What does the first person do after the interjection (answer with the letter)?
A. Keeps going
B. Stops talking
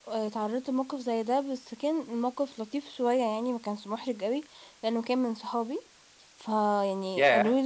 B